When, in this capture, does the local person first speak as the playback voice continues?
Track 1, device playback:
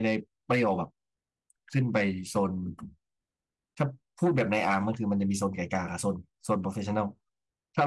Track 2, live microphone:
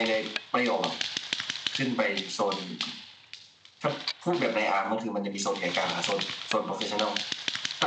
none

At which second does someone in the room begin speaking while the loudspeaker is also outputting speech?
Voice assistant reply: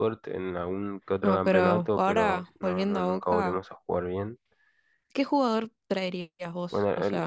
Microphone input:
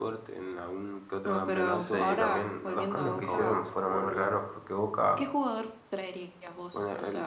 1.7 s

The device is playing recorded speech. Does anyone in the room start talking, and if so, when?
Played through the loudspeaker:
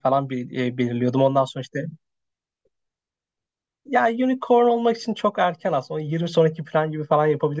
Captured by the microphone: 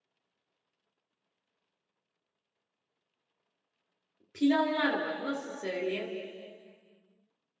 4.3 s

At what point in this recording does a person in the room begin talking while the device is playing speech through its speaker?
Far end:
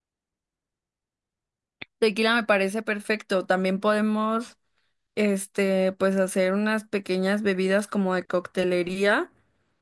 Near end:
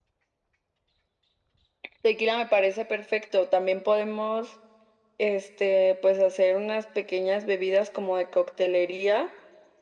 none

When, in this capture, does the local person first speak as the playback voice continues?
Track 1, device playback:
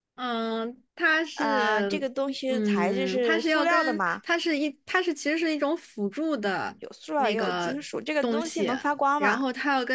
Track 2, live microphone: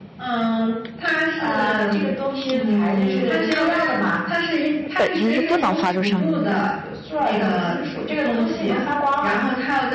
4.8 s

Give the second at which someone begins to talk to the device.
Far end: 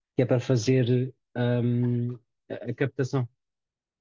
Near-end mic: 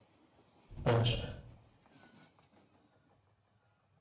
0.8 s

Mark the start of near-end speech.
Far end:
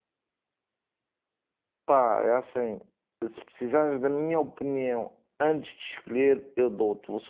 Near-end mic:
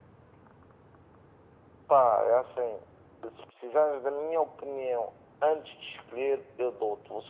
none

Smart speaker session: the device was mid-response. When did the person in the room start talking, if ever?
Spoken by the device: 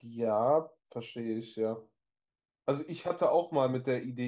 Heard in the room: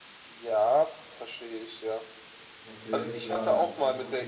2.6 s

